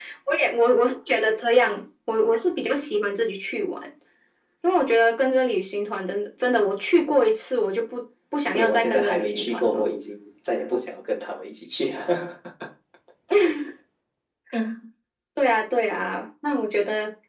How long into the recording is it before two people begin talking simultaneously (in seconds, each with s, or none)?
8.4 s